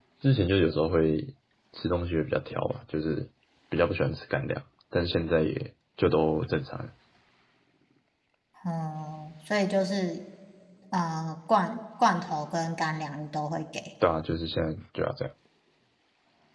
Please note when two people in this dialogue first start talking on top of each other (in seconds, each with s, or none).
none